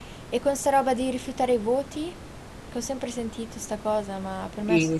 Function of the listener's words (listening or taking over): taking over